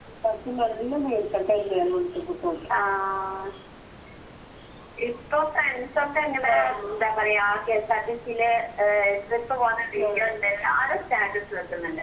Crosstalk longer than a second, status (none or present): none